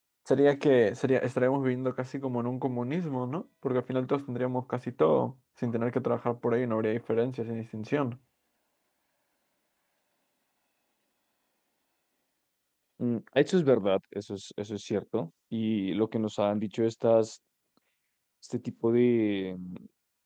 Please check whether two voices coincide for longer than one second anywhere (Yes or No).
No